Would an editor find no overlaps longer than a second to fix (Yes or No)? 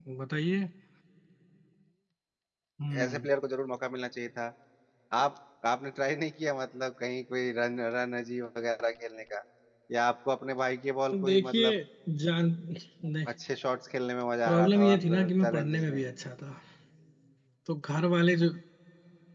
No